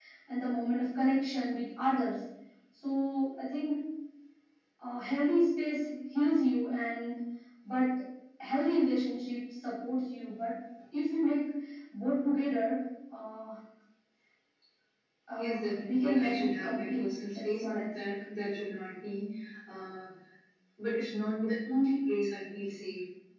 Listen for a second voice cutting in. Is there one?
Yes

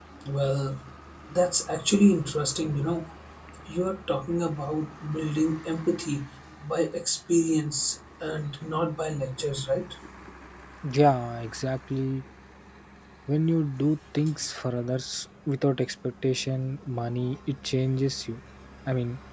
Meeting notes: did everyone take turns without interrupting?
Yes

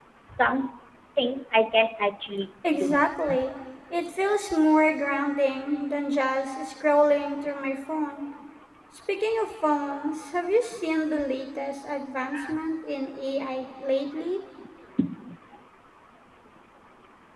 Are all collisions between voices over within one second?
Yes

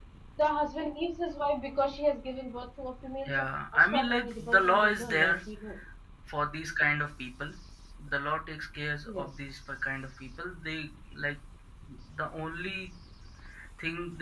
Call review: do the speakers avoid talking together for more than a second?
No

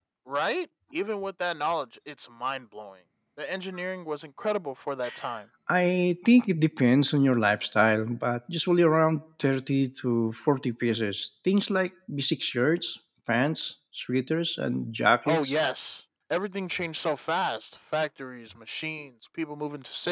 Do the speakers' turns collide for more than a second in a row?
No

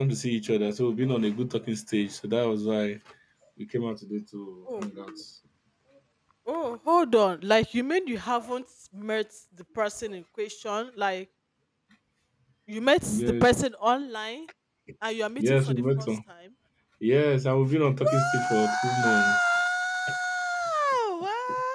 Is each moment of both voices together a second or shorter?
No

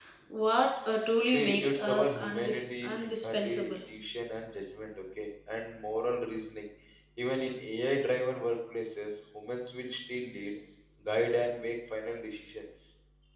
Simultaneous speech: Yes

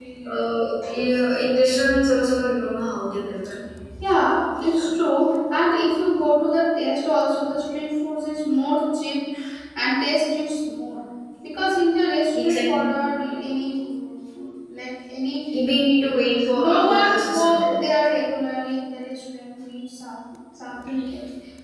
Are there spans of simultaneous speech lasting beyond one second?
Yes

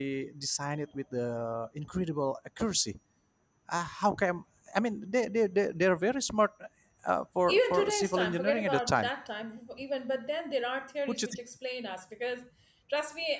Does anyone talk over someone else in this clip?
Yes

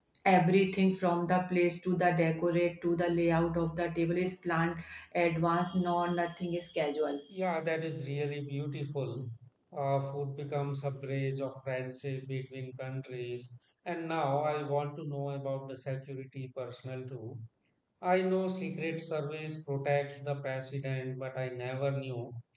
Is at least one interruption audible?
No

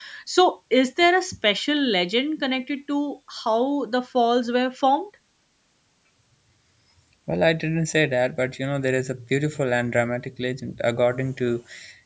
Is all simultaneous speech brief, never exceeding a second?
Yes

